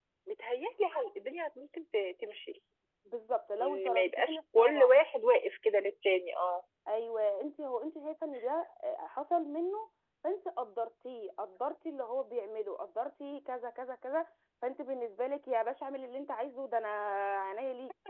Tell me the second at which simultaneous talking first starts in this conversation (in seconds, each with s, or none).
3.6 s